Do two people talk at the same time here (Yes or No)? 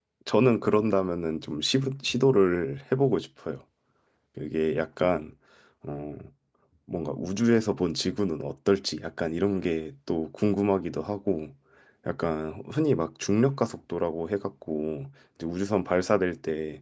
No